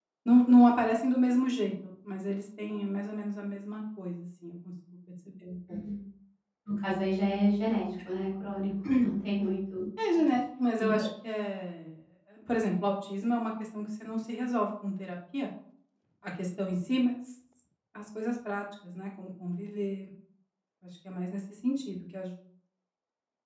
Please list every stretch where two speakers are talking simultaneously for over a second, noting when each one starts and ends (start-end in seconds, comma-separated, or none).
none